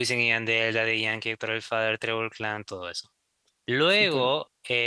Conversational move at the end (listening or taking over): listening